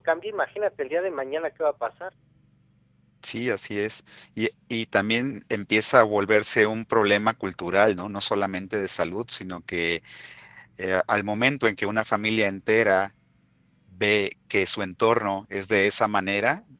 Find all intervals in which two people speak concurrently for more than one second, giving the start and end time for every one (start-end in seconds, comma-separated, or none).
none